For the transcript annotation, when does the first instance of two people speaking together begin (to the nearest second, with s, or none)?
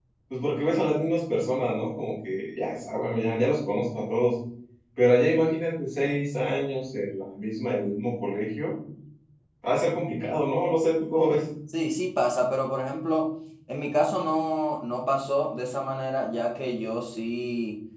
none